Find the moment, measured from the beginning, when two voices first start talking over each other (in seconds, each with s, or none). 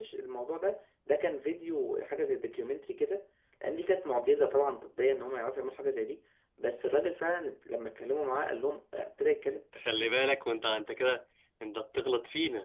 none